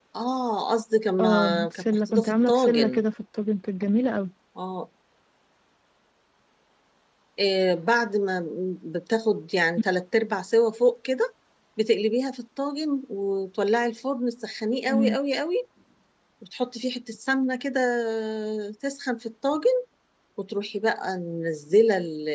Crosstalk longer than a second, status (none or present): present